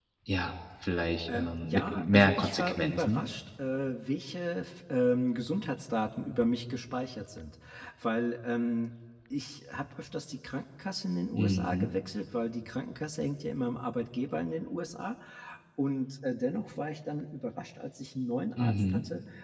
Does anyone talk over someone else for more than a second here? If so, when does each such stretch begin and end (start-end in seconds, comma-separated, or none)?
1.3-3.2